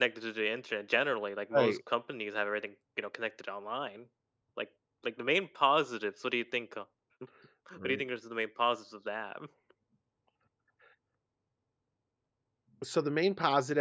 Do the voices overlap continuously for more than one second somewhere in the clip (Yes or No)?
No